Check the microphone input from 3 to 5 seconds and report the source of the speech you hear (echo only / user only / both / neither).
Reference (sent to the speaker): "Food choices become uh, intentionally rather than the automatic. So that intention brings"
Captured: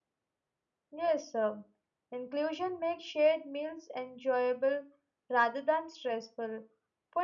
user only